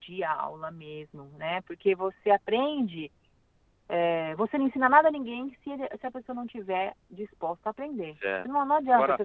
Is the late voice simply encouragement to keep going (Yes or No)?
No